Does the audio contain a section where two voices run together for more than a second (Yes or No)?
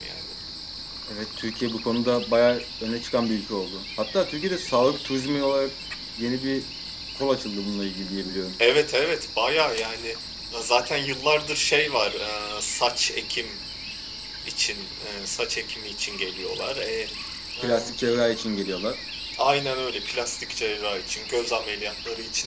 No